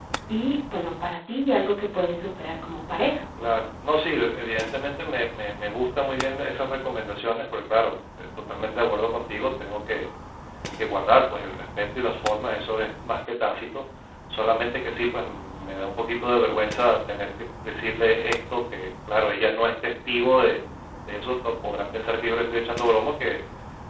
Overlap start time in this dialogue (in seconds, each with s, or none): none